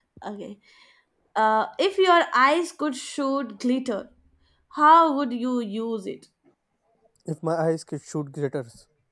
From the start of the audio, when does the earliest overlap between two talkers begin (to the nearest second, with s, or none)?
none